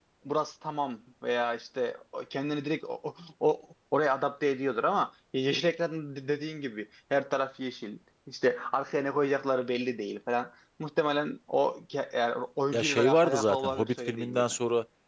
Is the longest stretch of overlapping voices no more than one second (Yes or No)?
No